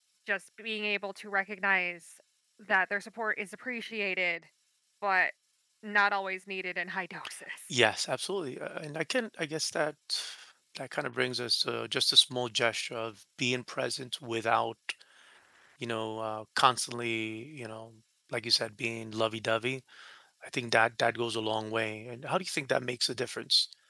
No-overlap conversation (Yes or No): Yes